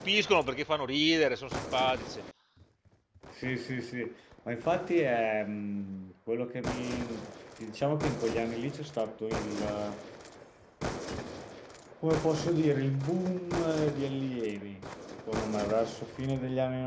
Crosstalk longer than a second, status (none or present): none